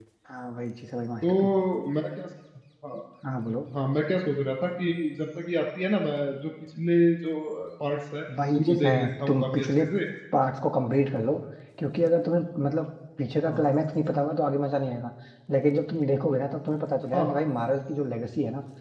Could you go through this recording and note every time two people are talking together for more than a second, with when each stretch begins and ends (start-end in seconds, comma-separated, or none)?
8.5-9.8